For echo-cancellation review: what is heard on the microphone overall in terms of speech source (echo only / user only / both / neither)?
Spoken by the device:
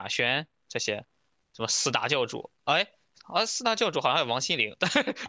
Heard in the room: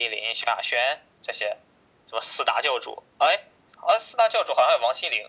echo only